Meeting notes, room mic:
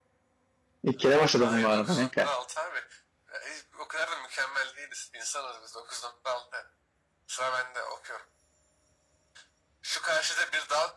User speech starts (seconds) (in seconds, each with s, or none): 0.8 s